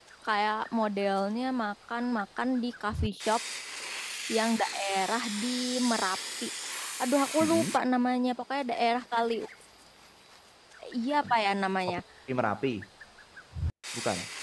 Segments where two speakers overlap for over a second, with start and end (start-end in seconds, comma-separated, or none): none